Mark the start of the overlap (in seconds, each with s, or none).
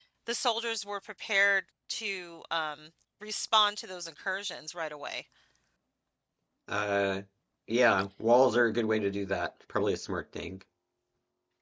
none